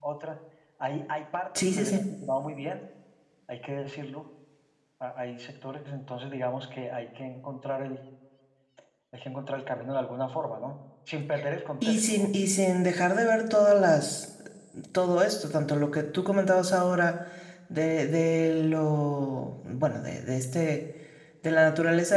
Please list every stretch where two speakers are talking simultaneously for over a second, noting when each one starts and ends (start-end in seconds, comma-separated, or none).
none